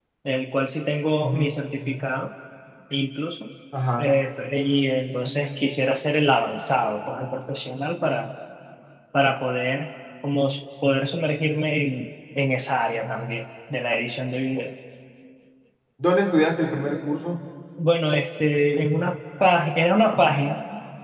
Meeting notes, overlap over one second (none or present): none